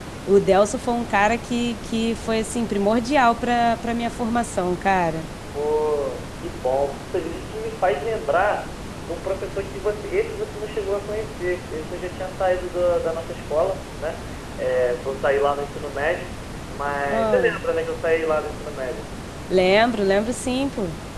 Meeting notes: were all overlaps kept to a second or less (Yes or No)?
Yes